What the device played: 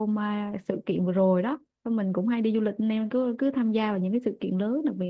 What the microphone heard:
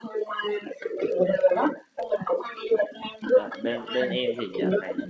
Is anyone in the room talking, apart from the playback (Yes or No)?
Yes